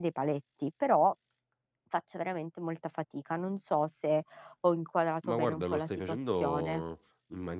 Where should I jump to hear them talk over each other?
5.3 s

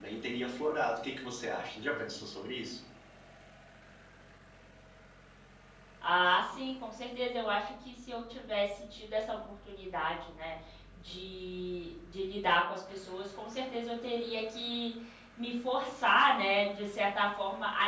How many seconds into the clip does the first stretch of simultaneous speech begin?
none

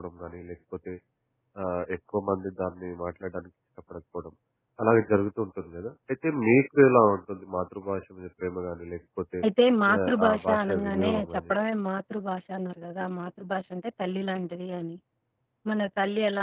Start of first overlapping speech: 10.1 s

